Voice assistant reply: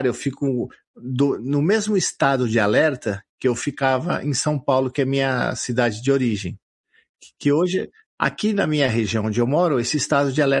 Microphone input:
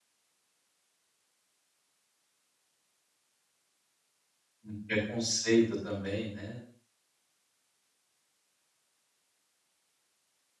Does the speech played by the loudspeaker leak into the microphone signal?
No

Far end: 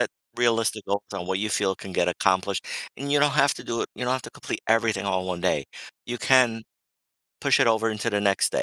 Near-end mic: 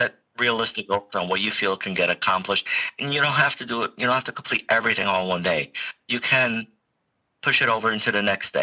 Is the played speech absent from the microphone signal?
No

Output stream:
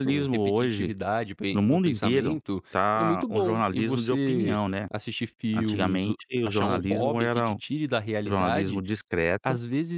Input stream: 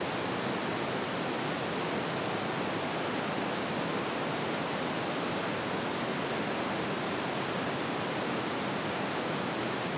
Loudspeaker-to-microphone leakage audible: No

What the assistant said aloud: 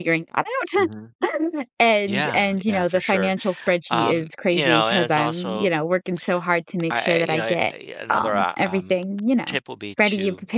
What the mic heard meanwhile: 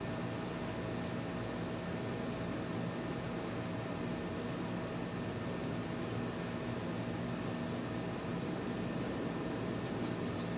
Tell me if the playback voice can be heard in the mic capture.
No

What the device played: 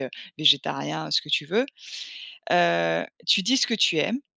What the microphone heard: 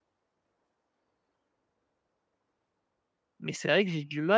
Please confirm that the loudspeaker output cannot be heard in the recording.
Yes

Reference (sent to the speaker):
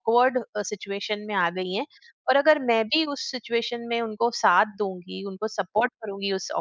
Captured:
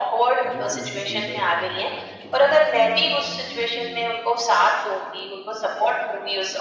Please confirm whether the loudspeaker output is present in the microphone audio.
Yes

